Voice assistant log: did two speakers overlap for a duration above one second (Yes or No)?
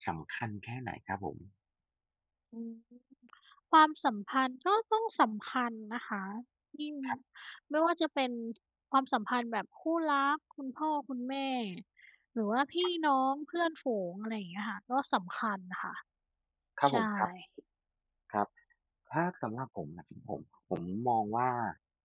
No